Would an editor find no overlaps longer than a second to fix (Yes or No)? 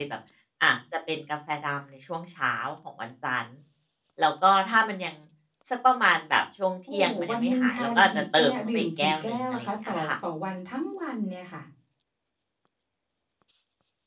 No